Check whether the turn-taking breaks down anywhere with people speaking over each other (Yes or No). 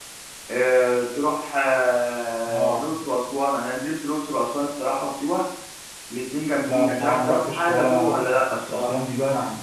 Yes